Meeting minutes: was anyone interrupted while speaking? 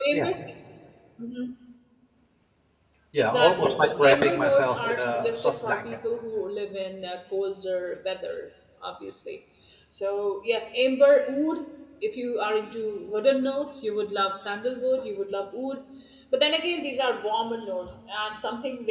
Yes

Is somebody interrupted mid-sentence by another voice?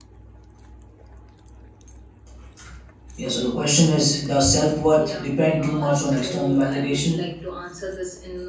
Yes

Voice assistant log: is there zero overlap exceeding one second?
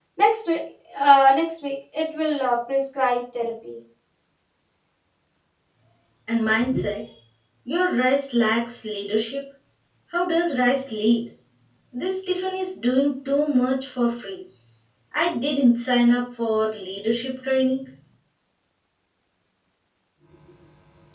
Yes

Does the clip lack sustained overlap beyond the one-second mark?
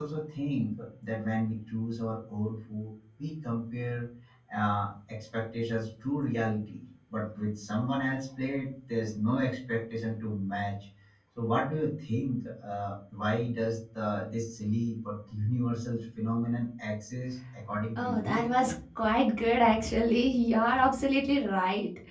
Yes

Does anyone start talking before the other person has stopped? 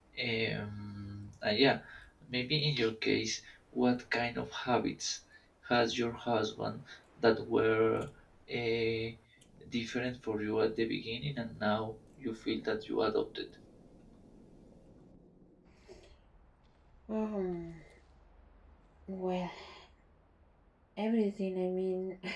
No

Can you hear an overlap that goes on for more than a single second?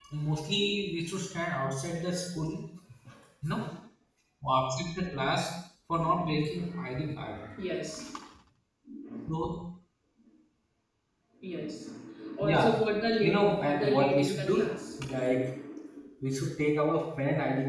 Yes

